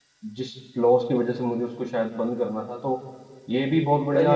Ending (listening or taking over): taking over